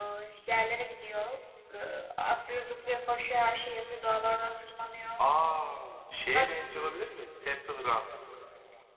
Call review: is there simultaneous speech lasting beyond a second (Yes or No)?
No